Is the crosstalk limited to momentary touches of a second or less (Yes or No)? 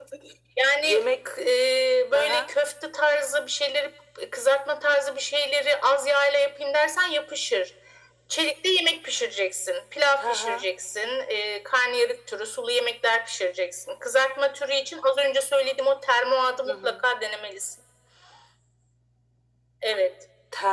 Yes